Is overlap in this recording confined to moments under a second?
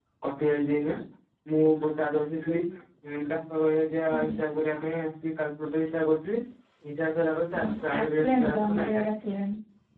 No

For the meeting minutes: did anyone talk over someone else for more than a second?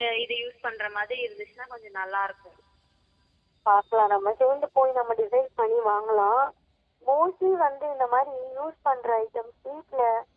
No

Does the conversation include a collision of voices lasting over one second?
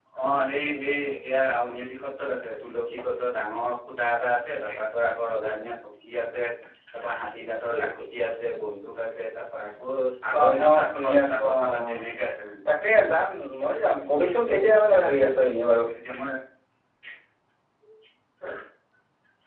Yes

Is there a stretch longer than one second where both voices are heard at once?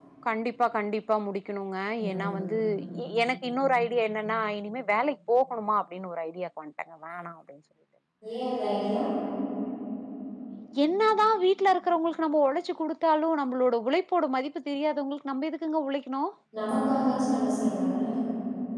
No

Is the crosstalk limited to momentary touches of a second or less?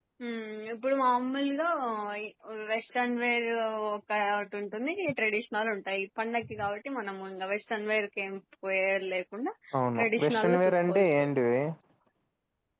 No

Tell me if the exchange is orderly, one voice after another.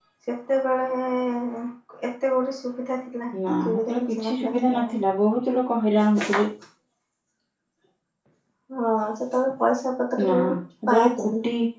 No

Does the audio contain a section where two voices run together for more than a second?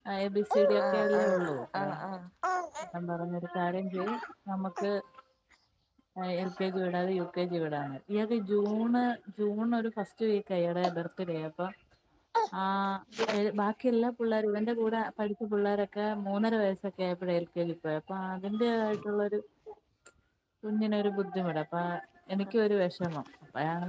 Yes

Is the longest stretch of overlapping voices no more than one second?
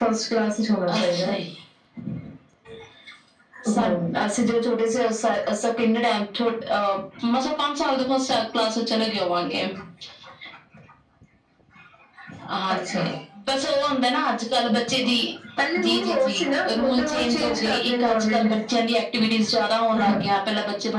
No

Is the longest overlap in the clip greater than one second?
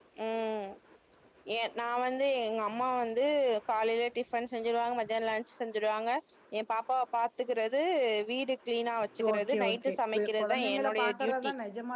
Yes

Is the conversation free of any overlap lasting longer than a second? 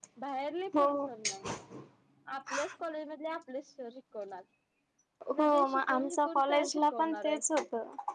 No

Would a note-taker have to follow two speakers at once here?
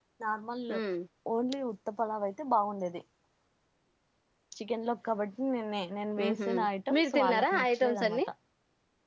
Yes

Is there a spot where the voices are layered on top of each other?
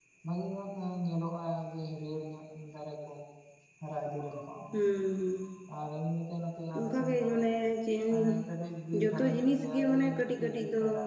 Yes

